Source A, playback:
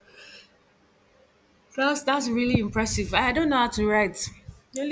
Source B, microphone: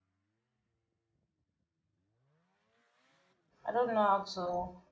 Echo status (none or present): none